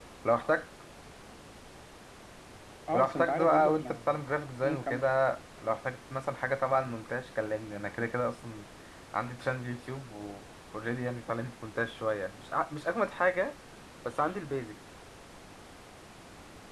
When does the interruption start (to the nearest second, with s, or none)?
3 s